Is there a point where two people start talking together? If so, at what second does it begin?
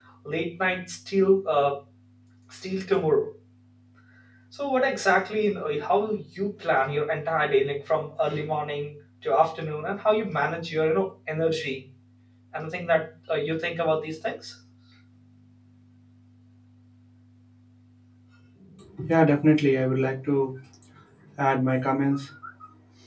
none

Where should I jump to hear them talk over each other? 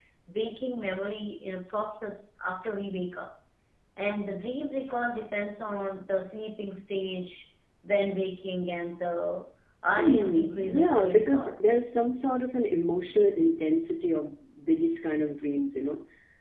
10.0 s

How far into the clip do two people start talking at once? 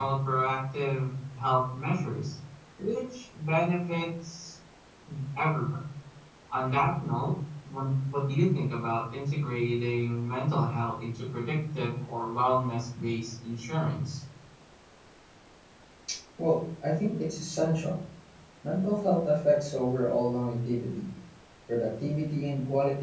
none

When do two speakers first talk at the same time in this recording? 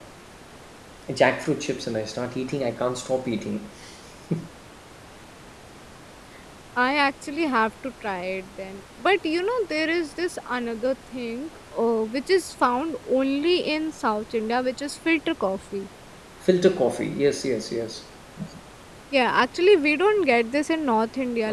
none

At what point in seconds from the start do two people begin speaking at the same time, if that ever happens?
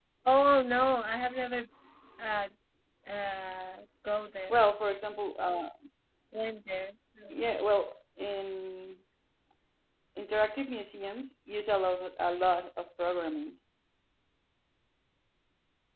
none

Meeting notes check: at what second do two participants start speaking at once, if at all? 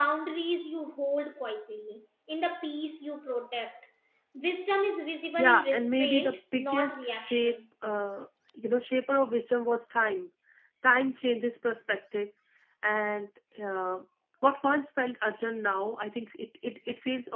5.4 s

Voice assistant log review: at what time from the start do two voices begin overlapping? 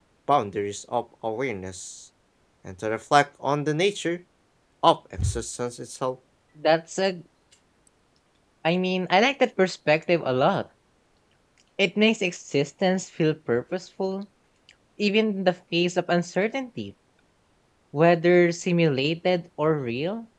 none

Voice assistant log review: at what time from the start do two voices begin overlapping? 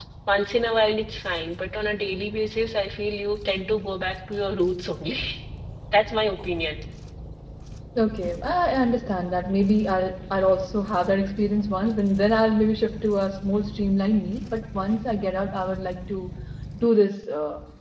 none

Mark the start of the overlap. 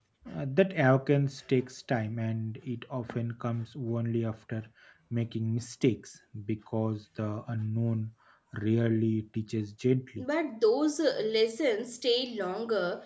none

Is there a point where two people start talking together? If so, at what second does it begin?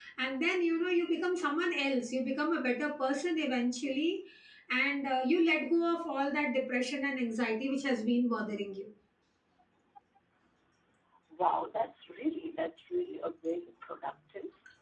none

